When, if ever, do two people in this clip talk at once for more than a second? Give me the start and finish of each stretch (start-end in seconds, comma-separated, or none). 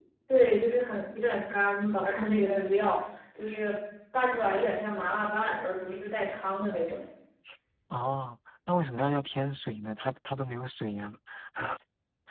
none